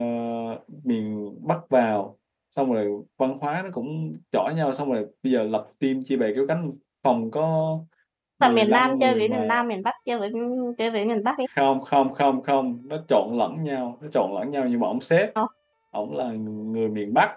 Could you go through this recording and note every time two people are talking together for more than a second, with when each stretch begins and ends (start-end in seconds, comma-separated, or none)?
8.4-9.6